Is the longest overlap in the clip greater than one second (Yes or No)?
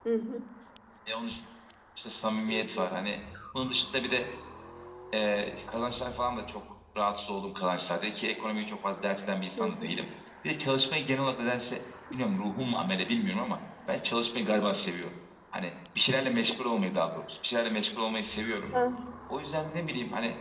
No